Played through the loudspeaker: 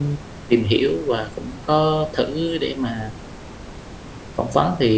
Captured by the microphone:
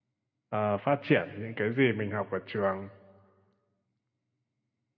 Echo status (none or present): none